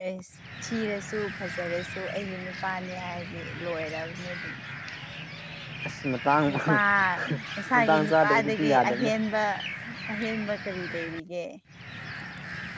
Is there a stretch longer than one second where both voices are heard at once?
Yes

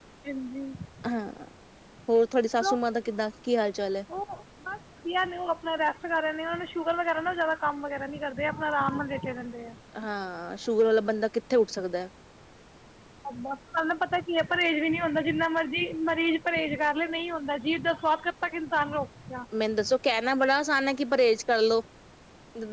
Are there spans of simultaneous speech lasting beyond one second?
No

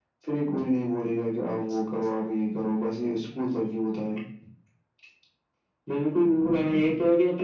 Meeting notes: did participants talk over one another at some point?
No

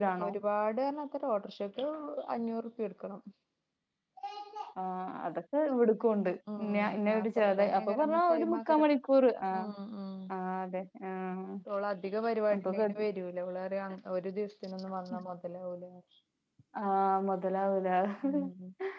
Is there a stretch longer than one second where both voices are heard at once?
Yes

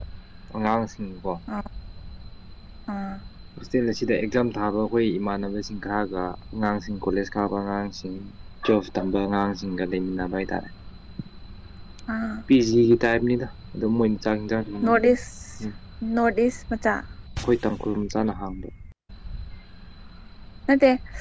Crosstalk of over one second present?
No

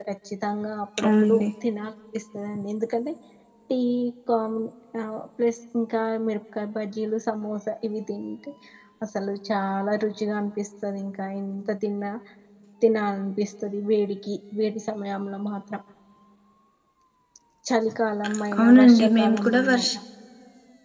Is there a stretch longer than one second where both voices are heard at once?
Yes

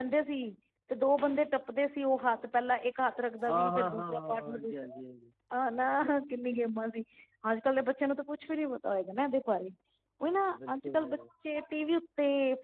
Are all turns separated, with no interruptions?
No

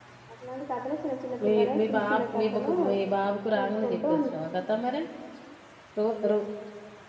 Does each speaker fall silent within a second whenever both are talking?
No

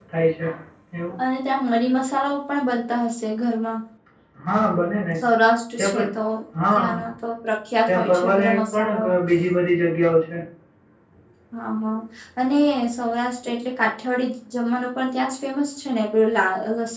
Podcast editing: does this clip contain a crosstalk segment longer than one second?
Yes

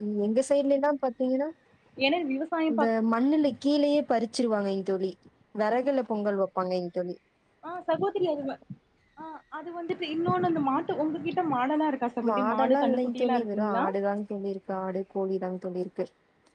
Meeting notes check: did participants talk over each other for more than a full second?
Yes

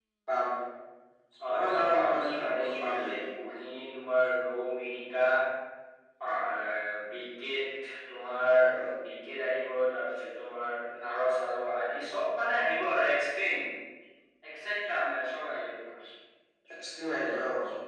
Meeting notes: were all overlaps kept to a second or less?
No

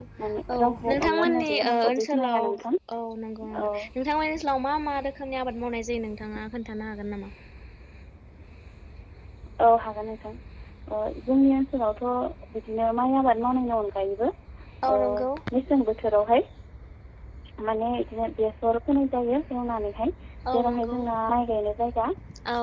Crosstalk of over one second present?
Yes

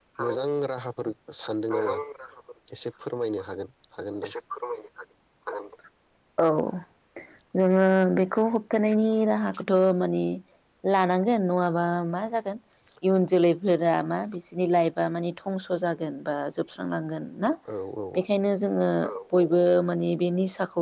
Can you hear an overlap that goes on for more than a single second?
No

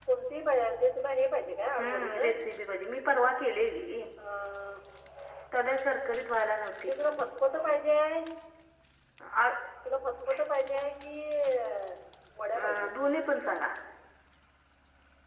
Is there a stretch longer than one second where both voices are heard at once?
No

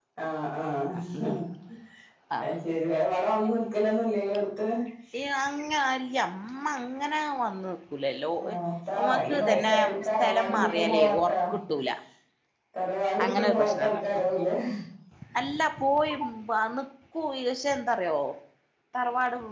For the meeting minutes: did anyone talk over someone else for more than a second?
Yes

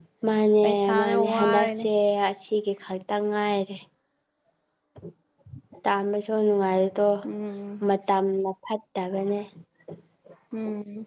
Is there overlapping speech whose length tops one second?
Yes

